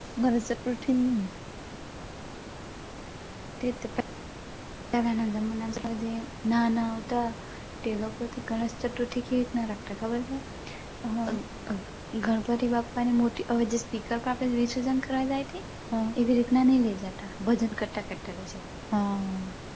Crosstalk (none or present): none